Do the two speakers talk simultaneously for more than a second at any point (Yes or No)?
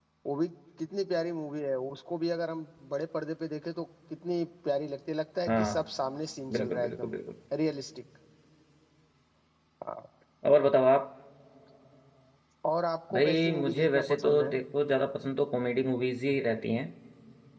Yes